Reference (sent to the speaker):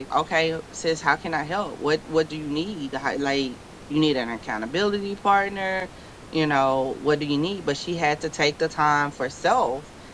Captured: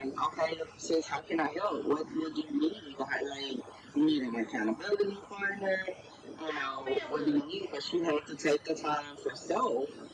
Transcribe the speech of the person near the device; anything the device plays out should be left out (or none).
I don't feel good.